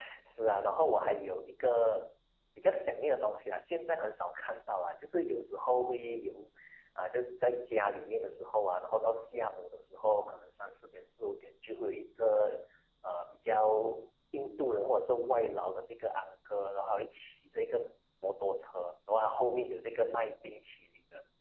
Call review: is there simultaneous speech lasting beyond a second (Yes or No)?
No